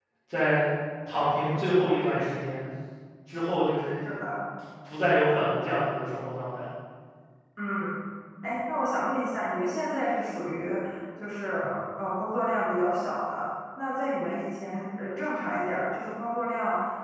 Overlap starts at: none

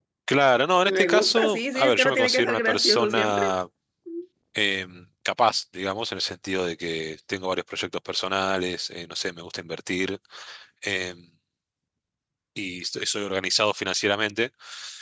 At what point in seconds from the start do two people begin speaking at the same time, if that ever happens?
0.9 s

